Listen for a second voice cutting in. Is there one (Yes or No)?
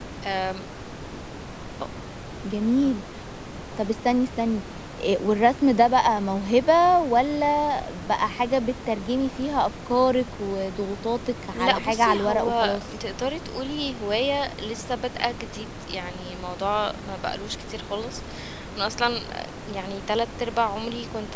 Yes